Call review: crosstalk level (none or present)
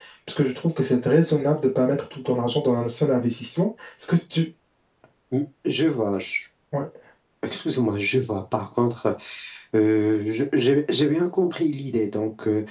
none